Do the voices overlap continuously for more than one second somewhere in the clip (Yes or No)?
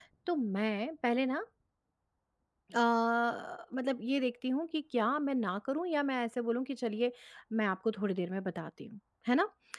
No